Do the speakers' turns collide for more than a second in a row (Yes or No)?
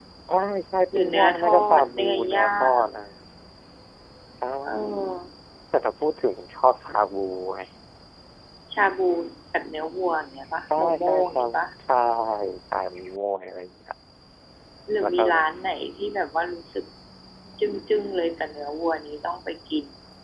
Yes